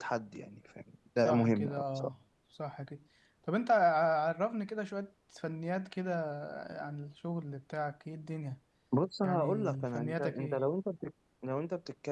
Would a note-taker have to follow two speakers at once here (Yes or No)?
Yes